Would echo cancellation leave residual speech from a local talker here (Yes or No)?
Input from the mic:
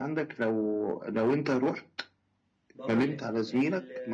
Yes